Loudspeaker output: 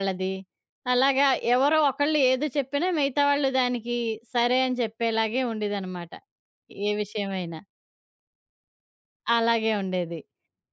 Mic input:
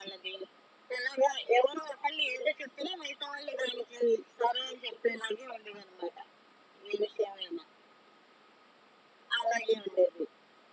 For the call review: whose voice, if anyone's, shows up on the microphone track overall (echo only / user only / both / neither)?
echo only